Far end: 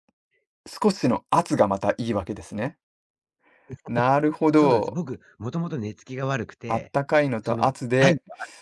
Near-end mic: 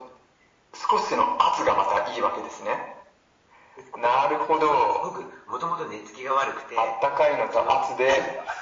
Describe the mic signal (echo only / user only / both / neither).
echo only